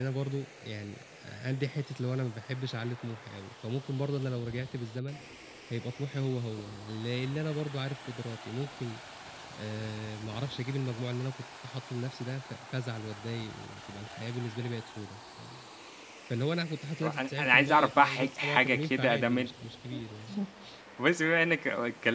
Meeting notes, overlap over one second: present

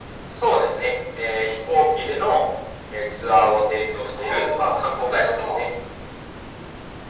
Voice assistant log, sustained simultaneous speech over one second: present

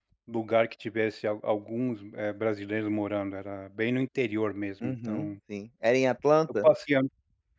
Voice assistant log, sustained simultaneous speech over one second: none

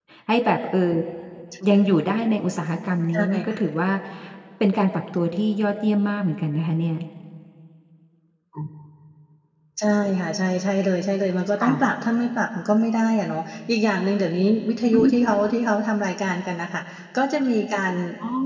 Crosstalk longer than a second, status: none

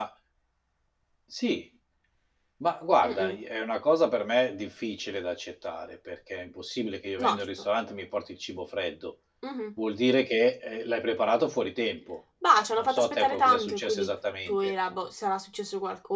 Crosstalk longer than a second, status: present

